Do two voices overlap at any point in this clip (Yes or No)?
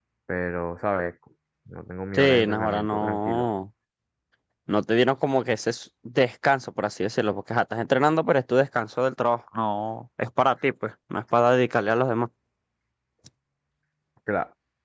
Yes